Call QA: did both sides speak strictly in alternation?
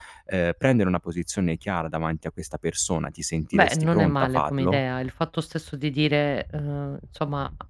No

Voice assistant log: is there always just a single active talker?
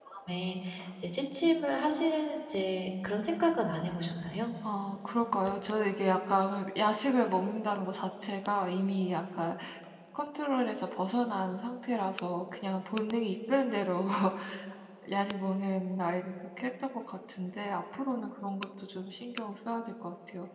Yes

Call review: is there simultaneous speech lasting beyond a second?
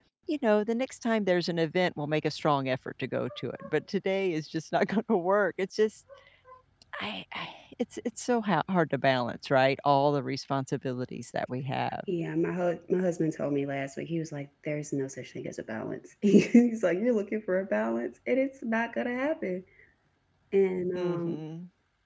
No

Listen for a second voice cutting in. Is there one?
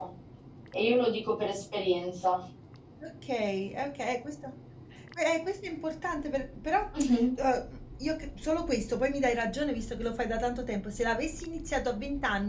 No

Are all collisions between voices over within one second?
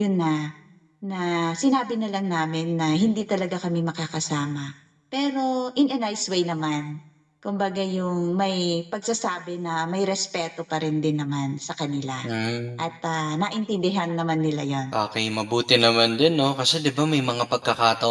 Yes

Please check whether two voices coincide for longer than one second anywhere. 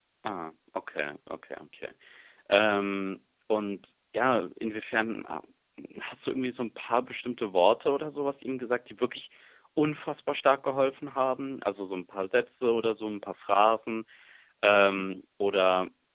No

